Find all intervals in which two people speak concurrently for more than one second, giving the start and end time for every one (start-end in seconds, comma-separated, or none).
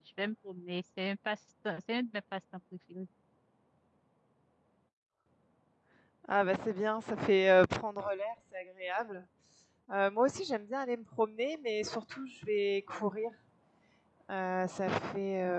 none